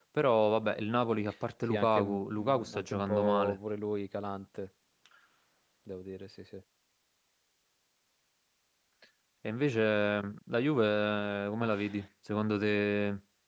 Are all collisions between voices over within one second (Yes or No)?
No